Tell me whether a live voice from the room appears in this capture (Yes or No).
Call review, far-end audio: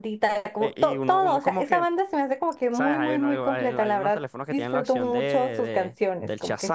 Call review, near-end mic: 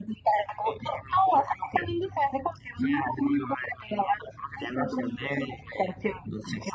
No